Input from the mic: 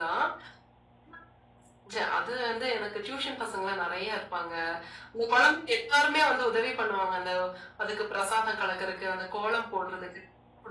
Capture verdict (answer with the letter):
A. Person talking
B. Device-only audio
B